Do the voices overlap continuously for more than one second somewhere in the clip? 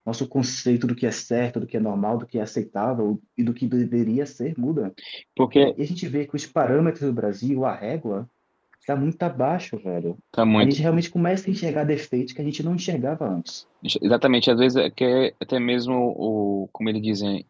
No

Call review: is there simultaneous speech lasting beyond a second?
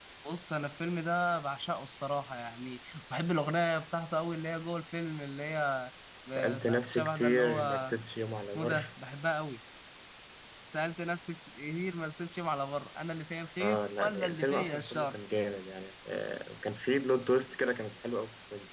Yes, from 6.6 s

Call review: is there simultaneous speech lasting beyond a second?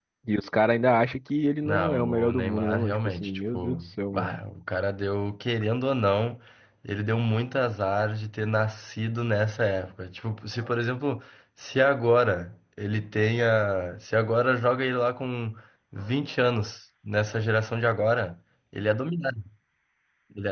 Yes, from 1.6 s

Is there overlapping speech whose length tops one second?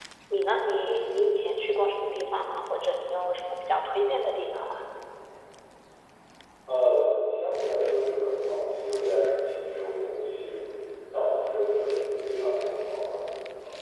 No

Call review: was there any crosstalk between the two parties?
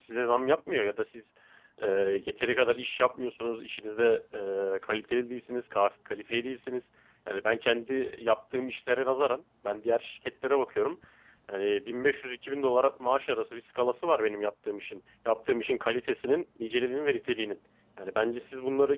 No

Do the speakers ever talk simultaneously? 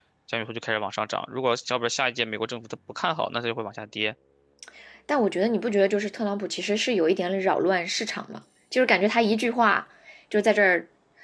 No

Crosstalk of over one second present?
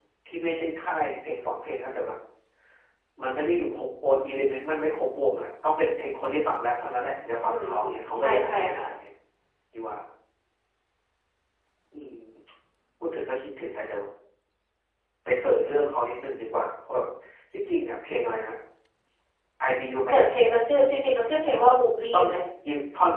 Yes, from 7.4 s

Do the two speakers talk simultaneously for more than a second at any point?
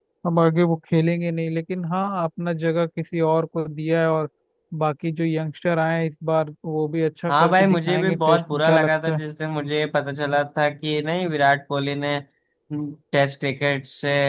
Yes, from 7.3 s

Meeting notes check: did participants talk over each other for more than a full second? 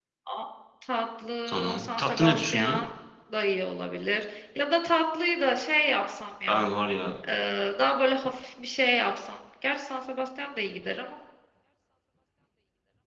Yes, from 1.5 s

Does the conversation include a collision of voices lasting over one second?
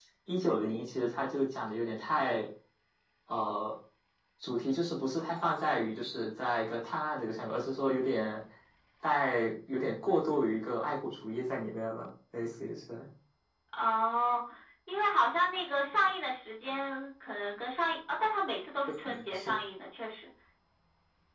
No

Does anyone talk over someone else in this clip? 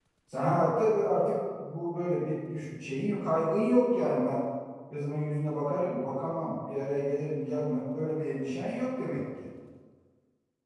No

